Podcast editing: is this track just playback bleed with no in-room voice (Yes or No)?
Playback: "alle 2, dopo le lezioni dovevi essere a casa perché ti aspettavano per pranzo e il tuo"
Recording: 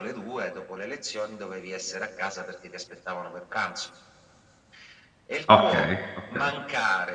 No